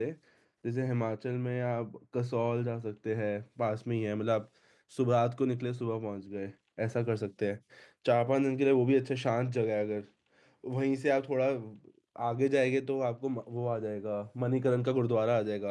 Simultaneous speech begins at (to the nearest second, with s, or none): none